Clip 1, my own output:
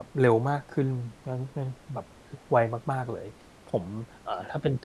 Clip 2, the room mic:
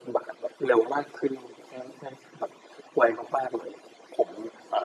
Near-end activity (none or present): none